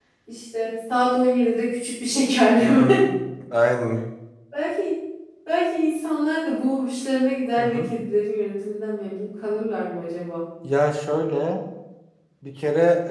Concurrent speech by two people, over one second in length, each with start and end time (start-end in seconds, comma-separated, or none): none